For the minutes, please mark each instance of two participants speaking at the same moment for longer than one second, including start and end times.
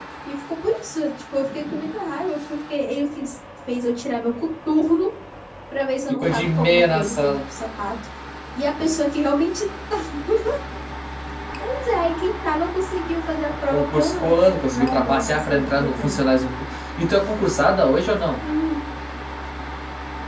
6.1-7.3, 13.7-16.2

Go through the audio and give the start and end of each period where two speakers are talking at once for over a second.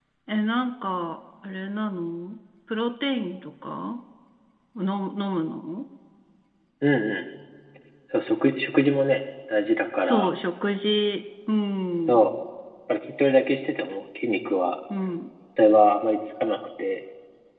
none

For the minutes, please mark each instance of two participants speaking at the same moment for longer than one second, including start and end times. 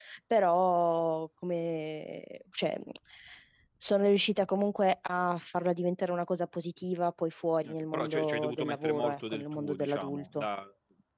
7.7-10.4

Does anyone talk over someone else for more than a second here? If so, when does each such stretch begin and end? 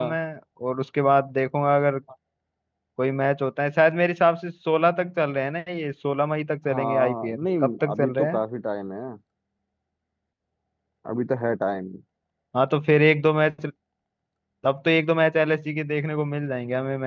6.7-8.4

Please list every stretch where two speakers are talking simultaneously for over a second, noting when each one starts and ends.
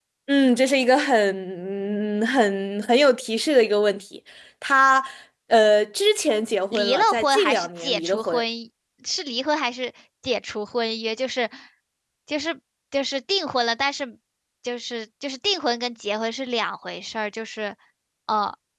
6.7-8.4

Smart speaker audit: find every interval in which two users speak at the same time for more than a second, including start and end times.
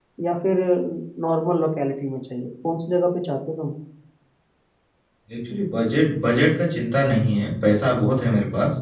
none

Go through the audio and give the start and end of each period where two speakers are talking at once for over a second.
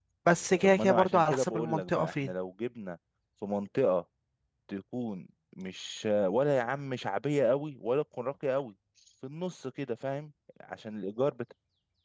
0.6-2.3

